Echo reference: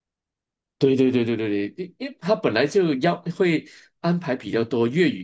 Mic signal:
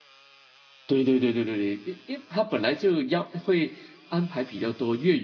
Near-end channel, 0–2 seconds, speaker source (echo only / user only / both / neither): echo only